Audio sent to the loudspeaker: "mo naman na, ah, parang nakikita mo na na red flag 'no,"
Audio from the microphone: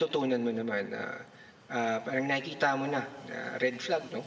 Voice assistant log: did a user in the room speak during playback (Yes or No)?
No